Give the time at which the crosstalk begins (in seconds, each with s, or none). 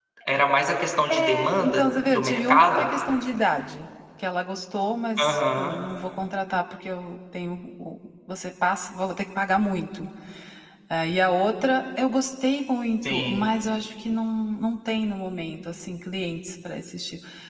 1.1 s